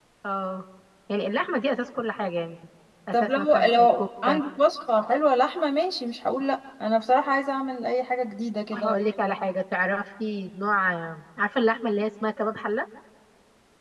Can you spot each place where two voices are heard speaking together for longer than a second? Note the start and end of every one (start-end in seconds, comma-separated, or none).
3.1-4.4